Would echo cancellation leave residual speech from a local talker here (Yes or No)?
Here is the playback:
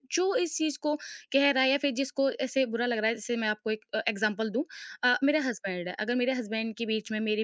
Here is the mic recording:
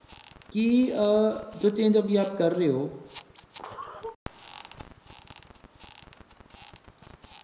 Yes